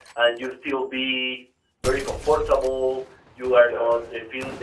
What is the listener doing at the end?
listening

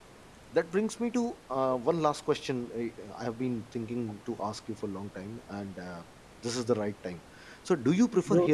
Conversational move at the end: listening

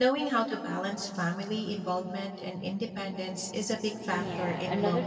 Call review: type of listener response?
taking over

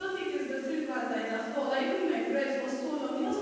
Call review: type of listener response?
taking over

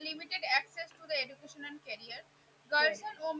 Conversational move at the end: listening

